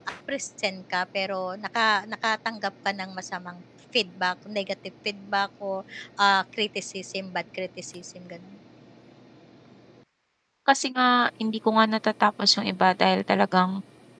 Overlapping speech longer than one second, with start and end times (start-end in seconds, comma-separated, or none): none